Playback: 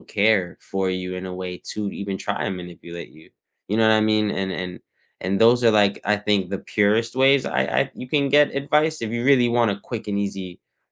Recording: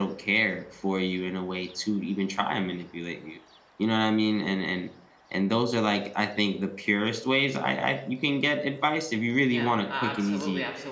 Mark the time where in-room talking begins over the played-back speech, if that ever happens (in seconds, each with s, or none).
9.4 s